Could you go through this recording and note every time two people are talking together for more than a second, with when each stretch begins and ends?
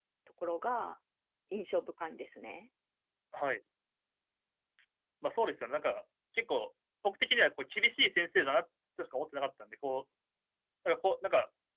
none

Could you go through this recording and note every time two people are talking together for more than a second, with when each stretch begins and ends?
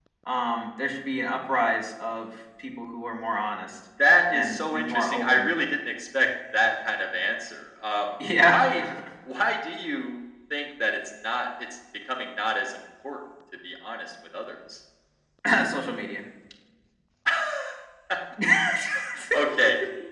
4.3-5.5

